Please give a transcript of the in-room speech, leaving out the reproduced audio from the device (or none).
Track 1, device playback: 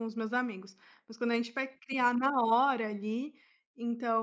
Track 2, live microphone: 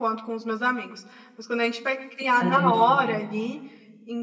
ali no show?